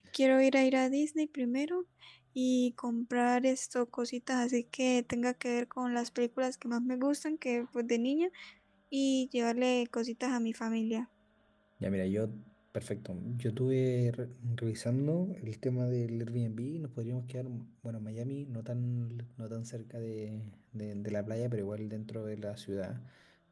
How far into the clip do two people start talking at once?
none

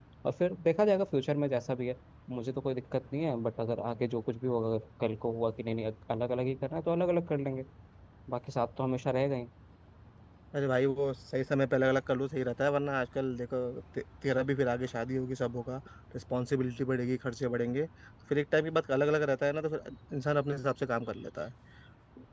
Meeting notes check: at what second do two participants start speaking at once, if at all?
none

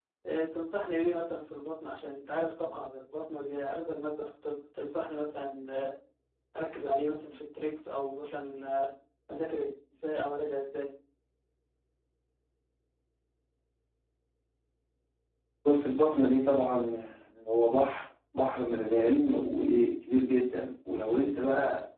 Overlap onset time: none

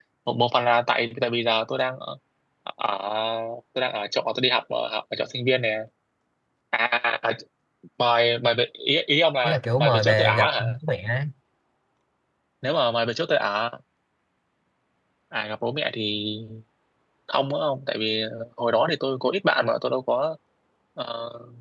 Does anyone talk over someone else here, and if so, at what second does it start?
9.4 s

